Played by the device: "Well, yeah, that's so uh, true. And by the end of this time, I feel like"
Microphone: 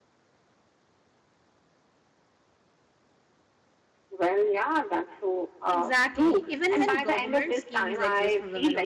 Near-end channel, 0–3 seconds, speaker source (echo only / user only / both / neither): neither